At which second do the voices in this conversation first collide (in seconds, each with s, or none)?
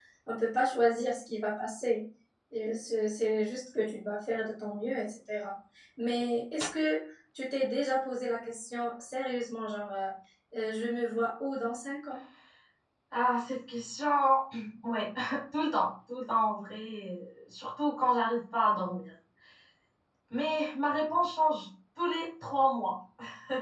none